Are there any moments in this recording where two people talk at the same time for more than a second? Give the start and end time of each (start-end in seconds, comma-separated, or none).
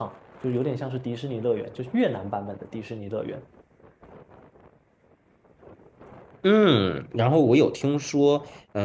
none